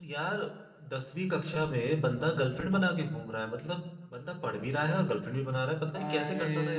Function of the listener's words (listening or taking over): taking over